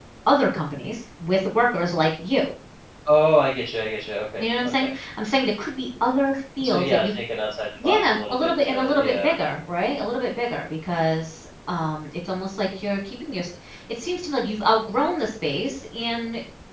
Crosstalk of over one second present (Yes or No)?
Yes